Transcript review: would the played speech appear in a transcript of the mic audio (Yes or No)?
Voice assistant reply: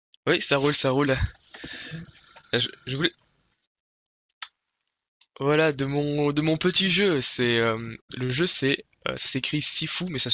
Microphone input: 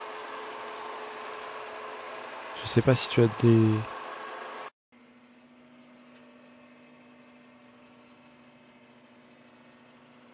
No